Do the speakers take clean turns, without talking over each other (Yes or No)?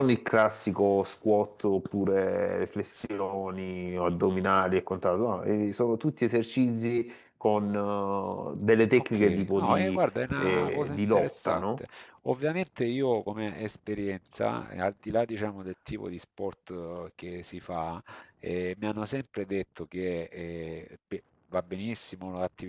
No